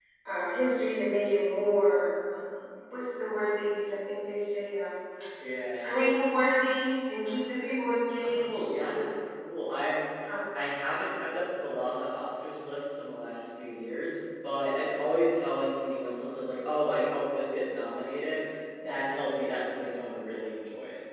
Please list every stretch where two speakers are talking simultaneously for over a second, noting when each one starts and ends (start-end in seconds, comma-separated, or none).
none